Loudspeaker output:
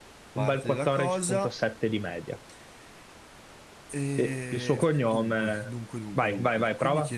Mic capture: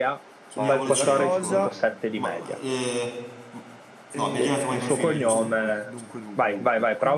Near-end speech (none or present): present